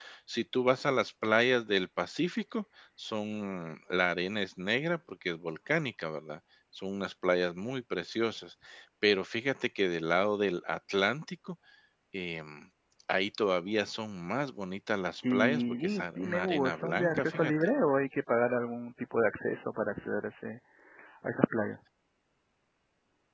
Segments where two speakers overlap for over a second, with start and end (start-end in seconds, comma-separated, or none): 15.3-17.5